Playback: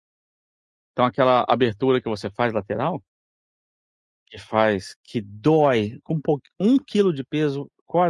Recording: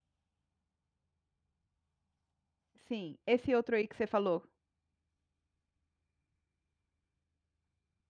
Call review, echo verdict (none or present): none